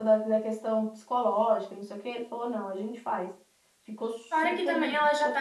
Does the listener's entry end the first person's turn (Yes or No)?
Yes